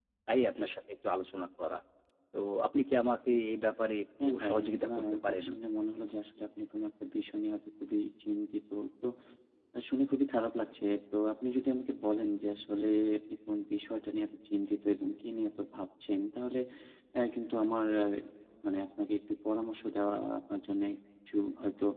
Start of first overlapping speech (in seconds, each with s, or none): 4.2 s